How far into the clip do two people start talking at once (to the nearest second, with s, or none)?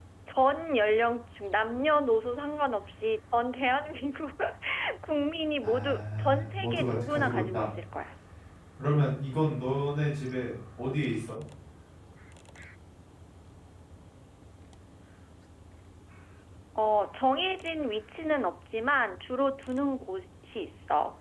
6 s